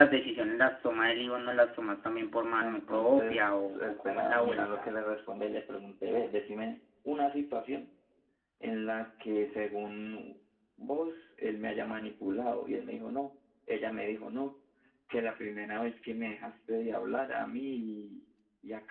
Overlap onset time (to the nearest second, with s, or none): 3 s